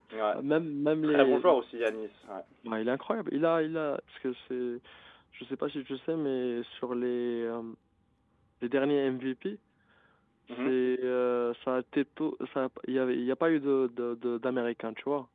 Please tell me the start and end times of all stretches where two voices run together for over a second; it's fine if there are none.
none

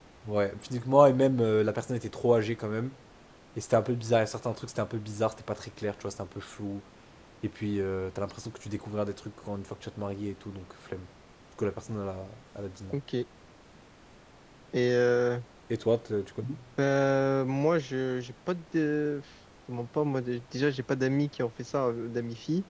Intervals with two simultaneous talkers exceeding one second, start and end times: none

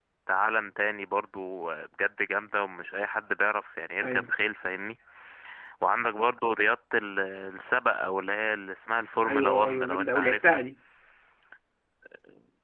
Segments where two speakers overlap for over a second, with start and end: 9.2-10.6

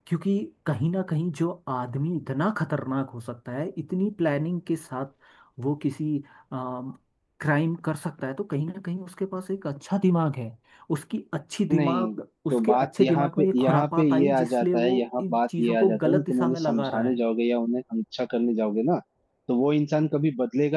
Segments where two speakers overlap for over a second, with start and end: 12.5-17.2

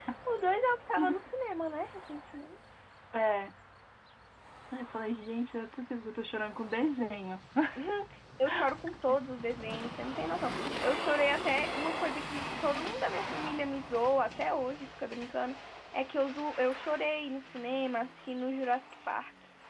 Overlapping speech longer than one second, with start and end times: none

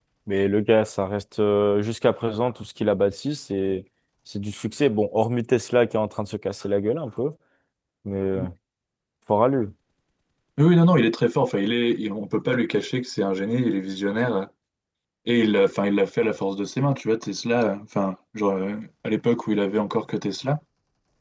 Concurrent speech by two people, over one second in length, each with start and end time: none

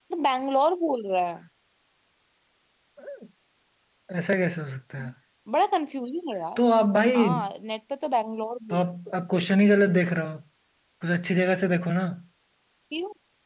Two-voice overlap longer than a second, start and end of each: none

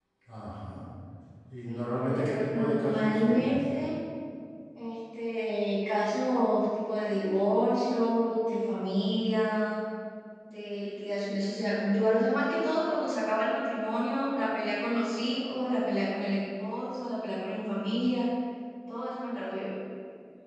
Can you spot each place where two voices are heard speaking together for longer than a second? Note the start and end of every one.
1.7-3.6

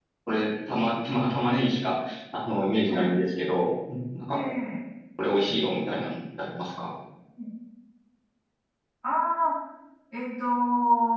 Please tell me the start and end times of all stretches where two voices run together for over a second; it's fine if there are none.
none

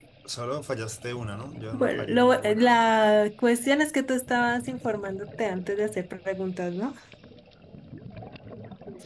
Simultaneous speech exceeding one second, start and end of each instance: 1.7-3.1

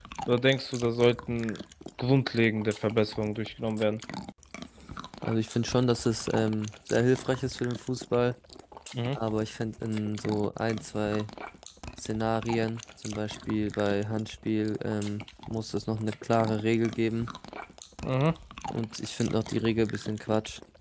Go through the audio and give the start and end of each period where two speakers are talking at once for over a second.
none

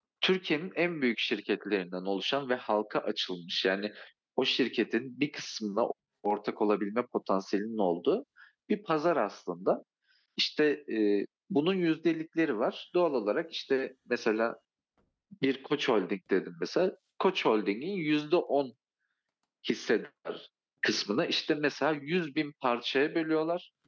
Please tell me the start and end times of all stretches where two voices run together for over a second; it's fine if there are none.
none

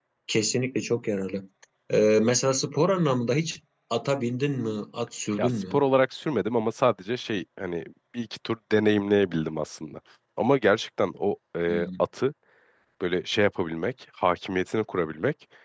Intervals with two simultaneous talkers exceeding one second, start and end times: none

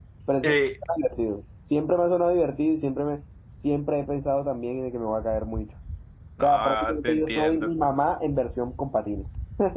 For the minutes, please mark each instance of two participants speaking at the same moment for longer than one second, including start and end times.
6.4-7.7

